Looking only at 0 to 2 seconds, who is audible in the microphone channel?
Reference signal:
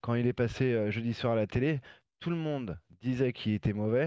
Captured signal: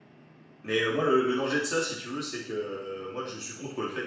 user only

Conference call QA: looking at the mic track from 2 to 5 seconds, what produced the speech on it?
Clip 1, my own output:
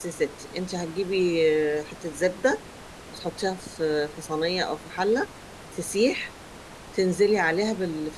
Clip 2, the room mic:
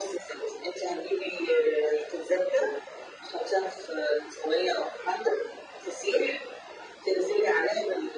echo only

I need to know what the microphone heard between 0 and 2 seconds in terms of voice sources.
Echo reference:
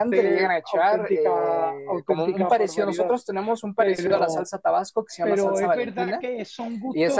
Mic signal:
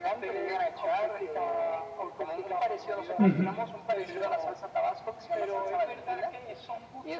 echo only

